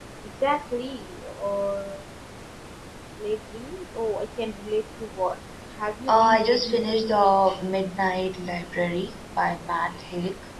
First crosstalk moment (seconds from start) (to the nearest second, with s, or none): 6 s